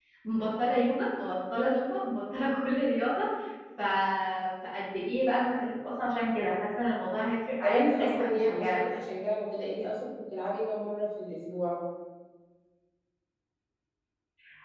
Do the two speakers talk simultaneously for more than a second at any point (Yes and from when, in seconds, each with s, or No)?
Yes, from 7.6 s